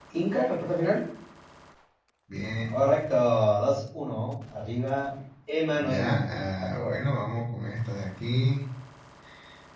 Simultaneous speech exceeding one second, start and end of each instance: 5.8-7.0

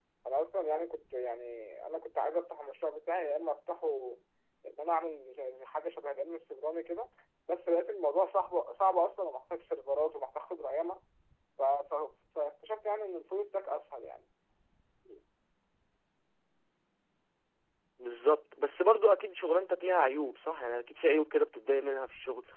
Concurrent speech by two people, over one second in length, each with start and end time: none

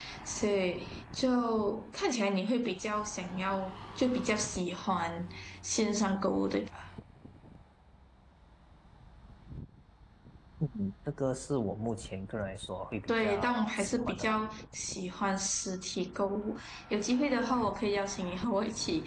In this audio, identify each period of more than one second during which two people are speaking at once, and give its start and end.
13.1-14.4

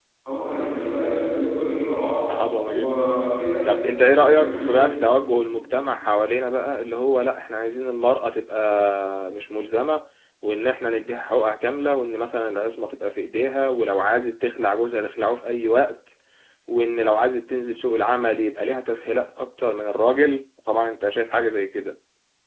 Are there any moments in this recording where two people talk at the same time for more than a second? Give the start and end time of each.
3.6-4.9

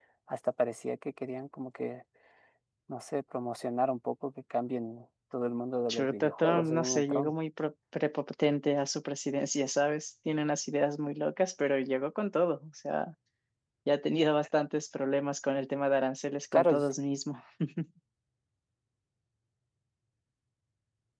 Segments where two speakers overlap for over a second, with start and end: 5.9-7.3

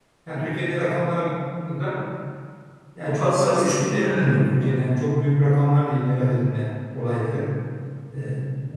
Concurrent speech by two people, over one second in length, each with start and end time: 3.1-4.8

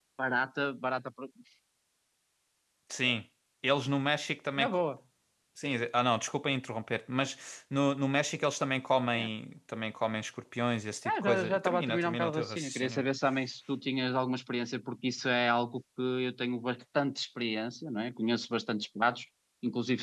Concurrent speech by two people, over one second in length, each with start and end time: 11.1-13.0

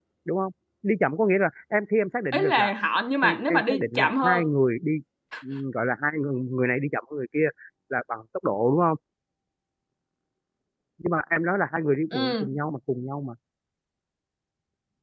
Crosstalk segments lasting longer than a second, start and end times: 3.2-4.5

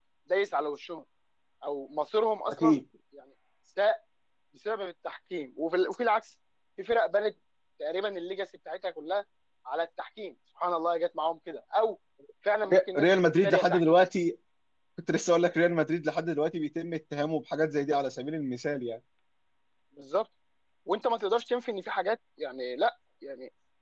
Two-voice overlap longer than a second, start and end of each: 12.7-14.0

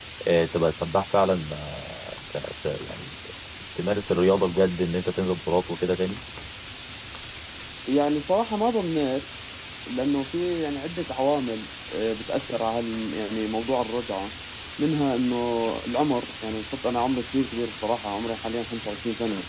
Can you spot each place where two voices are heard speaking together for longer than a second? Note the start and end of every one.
none

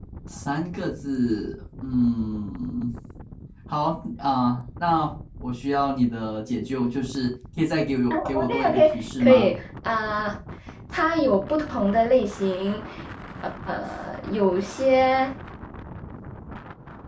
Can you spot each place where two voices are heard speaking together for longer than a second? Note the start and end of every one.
8.1-9.5

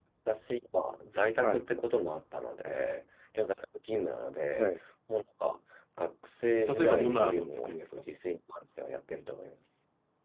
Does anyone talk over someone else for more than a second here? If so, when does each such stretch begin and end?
6.7-8.0

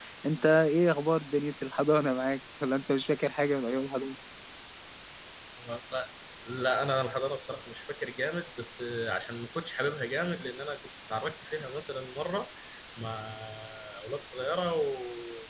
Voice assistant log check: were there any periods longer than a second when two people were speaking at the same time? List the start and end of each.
none

